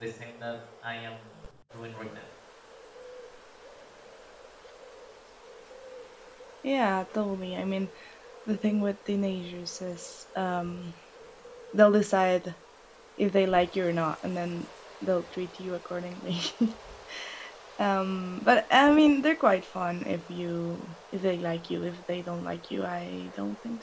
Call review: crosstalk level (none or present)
none